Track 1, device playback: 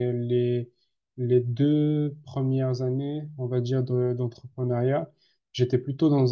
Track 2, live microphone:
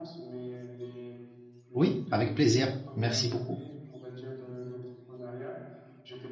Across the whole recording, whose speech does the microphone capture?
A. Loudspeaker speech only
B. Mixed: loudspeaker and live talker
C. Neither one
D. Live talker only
B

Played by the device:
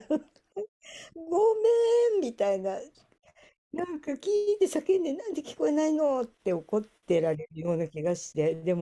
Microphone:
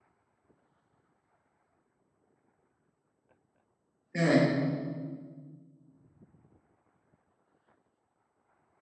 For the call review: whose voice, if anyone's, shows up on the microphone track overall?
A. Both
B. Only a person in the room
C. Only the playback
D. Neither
B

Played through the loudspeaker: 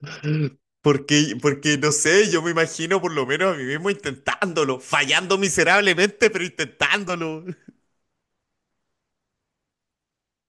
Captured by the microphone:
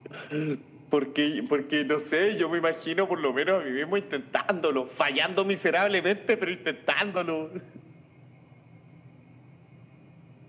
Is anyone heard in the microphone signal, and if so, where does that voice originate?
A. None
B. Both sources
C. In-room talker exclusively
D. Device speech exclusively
D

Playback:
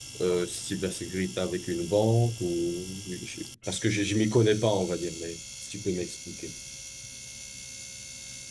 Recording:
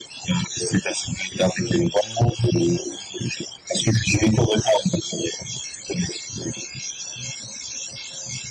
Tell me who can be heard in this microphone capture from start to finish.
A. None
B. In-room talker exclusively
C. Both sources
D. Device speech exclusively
D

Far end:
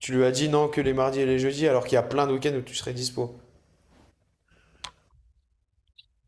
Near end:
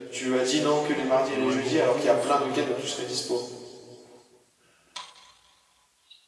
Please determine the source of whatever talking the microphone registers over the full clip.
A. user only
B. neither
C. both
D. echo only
C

